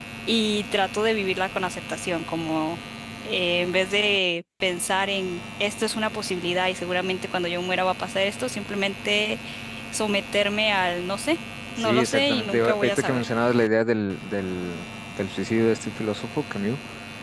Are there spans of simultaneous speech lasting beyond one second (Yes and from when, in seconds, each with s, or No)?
Yes, from 11.8 s